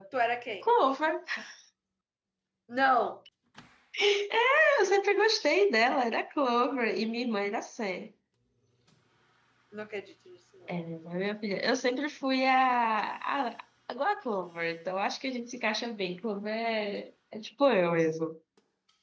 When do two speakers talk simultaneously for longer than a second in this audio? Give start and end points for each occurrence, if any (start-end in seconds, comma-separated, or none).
none